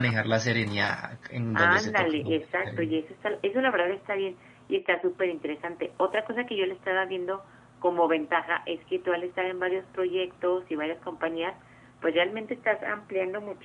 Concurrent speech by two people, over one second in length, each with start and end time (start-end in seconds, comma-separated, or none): 1.5-3.0